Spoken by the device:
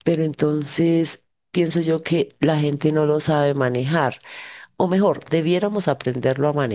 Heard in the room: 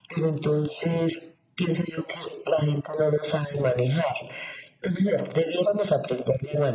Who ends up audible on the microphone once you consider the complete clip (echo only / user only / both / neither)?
echo only